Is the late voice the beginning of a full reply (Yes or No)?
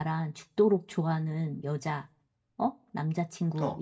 No